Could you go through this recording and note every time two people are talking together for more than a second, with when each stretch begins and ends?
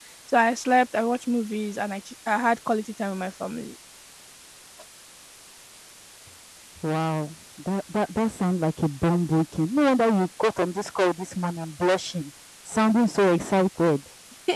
none

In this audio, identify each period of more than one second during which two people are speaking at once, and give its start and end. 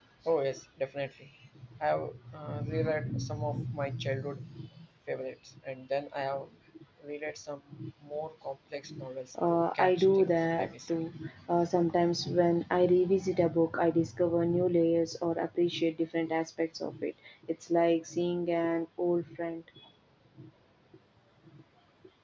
9.5-10.9

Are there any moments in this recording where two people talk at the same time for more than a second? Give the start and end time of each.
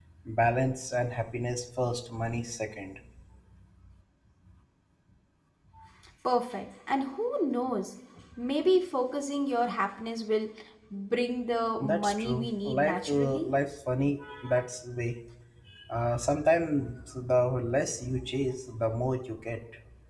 11.8-13.5

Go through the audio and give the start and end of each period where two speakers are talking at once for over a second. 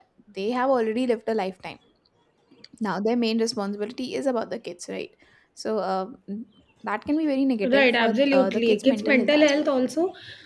7.6-9.7

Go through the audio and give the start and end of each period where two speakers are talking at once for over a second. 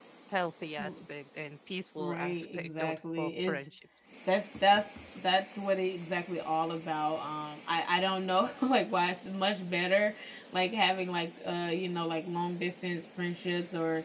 2.0-3.6

